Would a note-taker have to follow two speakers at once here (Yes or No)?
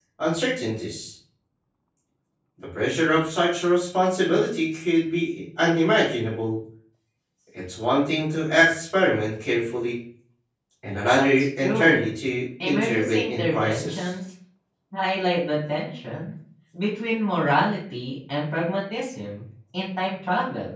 Yes